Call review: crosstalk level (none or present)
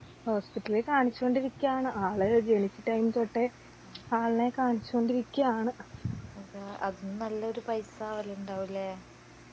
none